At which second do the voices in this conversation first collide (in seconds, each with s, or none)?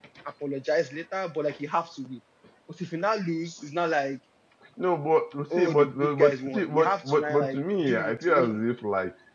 5.6 s